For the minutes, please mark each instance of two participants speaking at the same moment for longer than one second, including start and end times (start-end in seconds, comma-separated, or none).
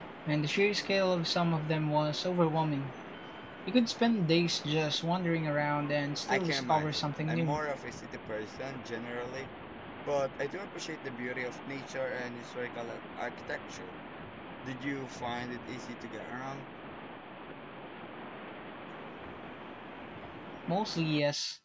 6.3-7.6